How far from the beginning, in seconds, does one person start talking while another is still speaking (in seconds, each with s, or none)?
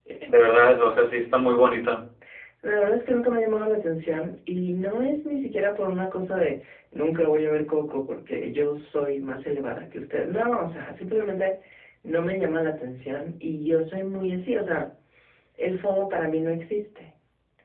none